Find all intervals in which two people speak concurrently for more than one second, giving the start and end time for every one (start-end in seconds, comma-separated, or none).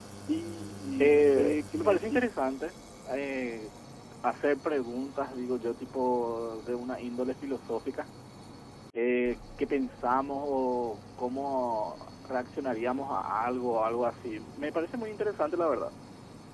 1.0-2.2